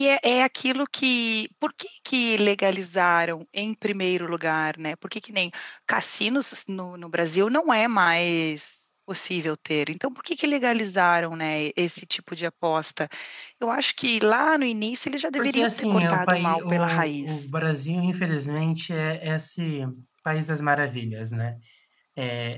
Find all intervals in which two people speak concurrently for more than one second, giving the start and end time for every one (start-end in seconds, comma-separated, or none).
15.4-17.4